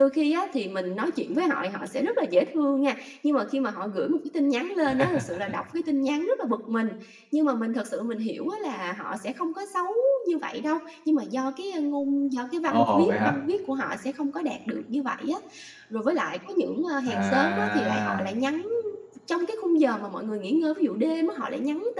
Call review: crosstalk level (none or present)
present